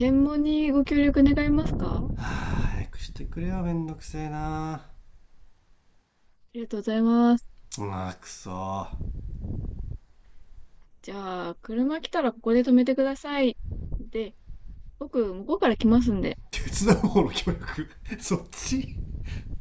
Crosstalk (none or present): none